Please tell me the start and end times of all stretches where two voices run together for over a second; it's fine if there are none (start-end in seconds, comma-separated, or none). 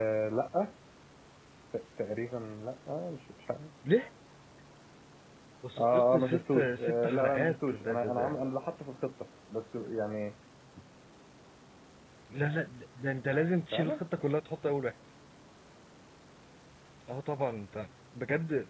5.8-8.4